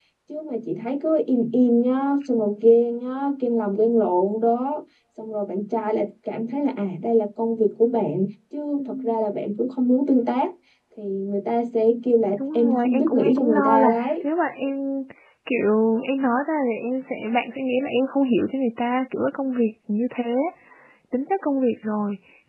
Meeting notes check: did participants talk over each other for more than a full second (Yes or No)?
Yes